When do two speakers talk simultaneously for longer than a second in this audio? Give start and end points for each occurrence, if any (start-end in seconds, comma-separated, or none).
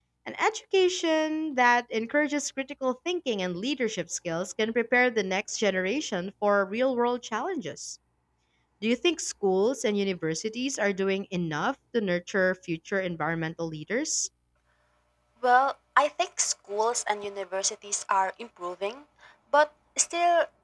none